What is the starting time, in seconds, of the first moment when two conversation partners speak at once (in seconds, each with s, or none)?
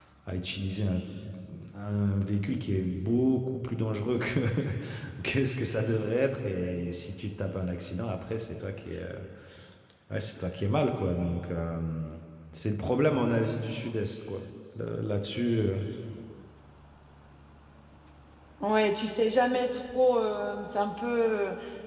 none